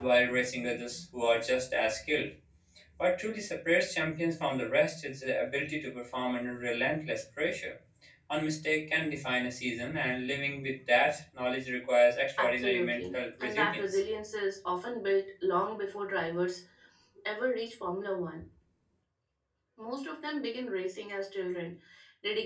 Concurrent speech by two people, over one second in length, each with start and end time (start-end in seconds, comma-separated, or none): 12.4-14.0